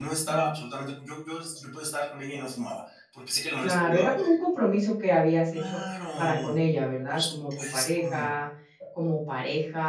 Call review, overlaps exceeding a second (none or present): present